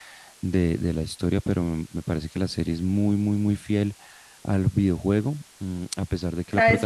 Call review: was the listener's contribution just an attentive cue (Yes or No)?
No